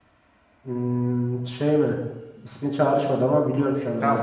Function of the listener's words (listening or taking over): taking over